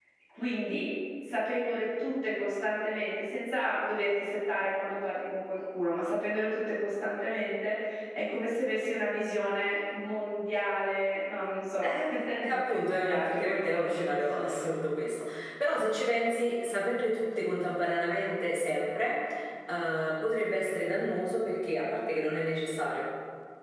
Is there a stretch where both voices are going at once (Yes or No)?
Yes